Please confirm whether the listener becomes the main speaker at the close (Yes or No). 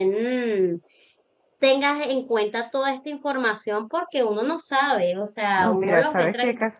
Yes